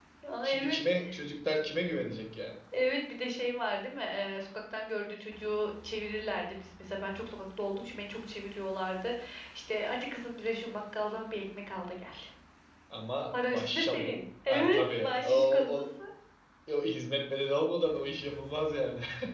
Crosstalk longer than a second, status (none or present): present